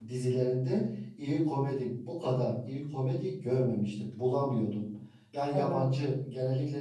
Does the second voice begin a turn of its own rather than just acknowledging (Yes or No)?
No